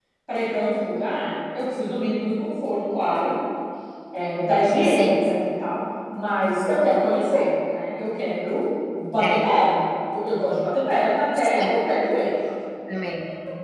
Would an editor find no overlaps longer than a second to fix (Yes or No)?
Yes